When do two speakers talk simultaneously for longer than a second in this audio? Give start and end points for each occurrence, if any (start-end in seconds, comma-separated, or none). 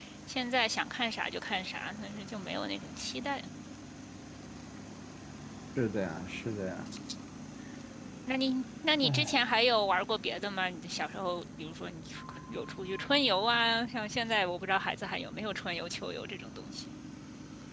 none